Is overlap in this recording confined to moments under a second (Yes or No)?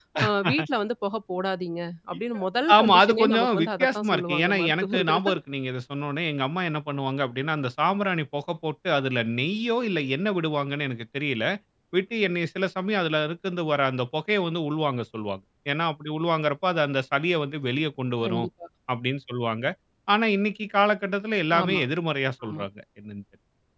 No